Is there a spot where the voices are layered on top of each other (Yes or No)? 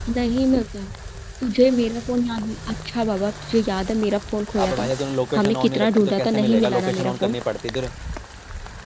Yes